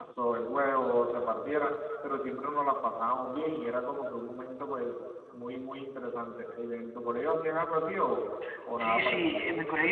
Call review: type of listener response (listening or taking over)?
taking over